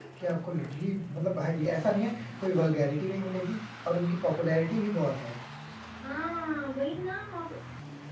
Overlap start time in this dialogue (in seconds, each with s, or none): none